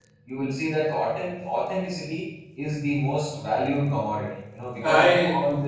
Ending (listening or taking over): listening